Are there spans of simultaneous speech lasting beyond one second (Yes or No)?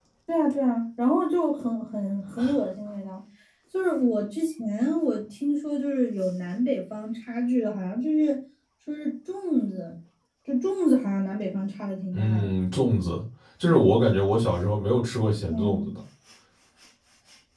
No